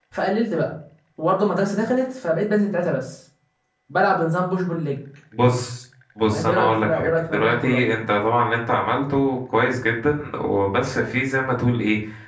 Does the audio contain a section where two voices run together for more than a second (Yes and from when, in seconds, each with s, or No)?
Yes, from 6.3 s